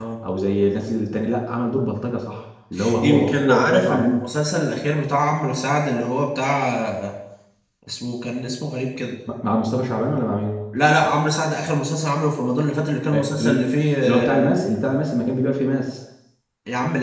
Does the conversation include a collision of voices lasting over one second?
Yes, from 3.0 s

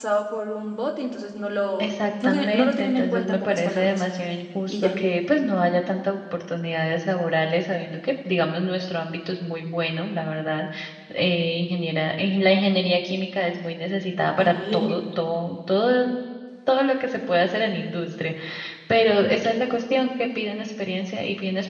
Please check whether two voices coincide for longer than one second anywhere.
Yes, from 1.8 s

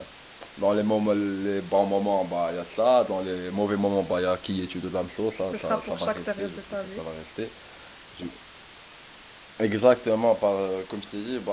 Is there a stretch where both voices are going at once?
Yes, from 5.4 s

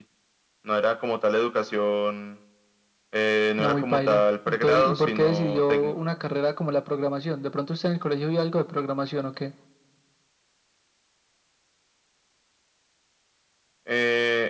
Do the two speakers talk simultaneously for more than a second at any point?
Yes, from 3.6 s

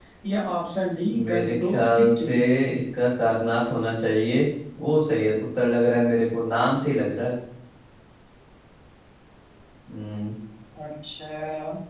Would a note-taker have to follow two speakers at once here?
Yes, from 1.1 s

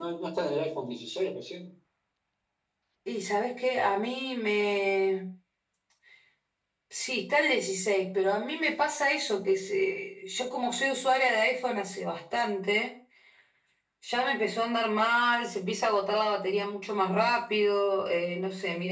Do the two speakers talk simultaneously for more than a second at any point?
No

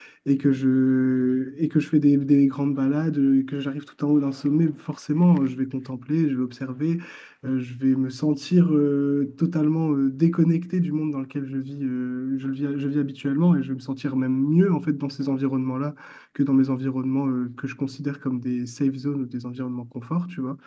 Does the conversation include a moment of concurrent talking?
No

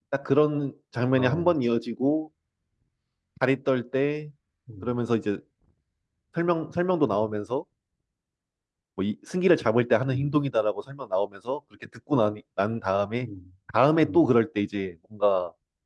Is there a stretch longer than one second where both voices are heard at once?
No

